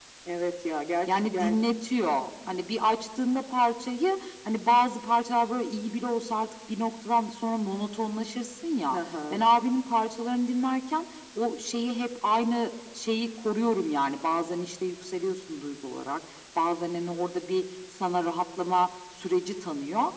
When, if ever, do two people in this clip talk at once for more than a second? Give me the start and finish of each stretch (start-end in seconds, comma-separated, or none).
none